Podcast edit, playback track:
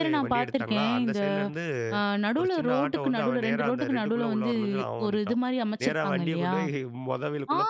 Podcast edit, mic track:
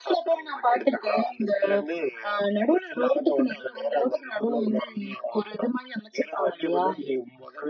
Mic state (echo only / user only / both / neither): echo only